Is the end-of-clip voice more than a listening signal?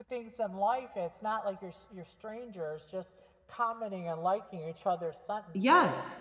Yes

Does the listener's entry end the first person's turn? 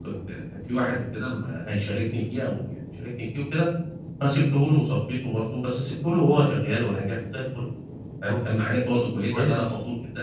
No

